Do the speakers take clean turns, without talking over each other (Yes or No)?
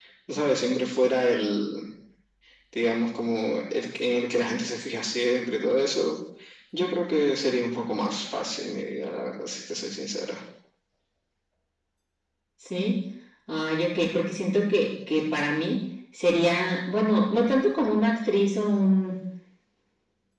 Yes